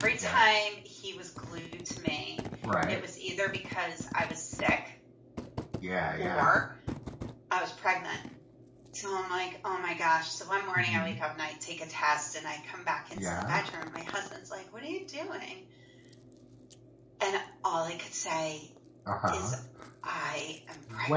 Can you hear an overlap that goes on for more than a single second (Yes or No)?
No